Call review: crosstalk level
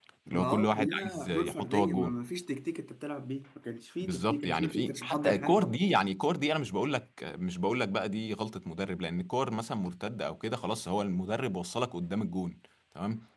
present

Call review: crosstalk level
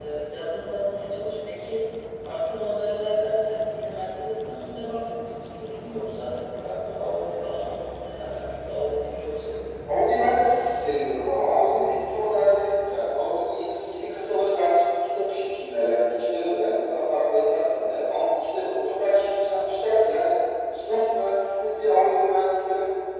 none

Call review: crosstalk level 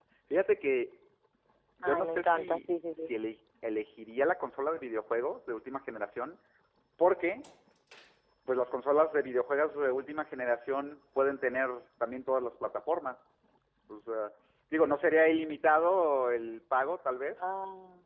present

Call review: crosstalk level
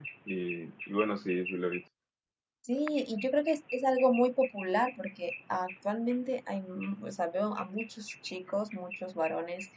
none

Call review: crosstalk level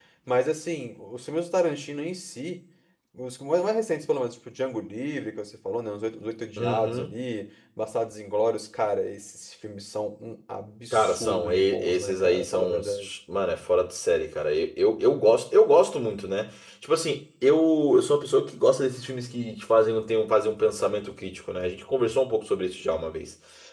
present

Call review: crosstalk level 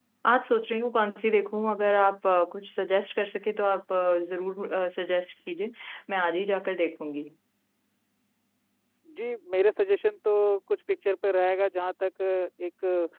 none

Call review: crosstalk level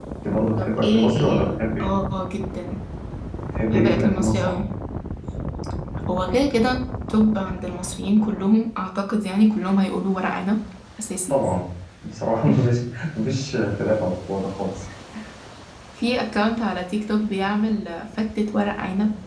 present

